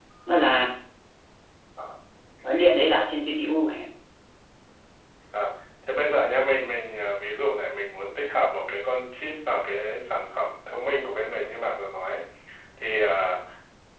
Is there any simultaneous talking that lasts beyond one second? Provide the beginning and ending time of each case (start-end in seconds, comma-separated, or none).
none